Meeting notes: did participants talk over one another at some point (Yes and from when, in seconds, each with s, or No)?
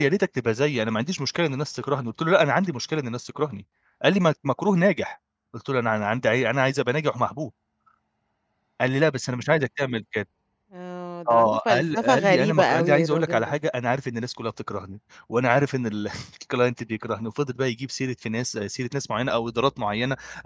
Yes, from 11.3 s